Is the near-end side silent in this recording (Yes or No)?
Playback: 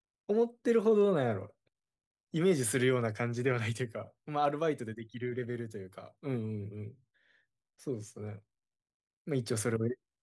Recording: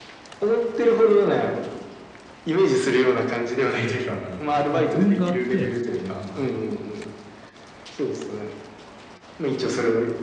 No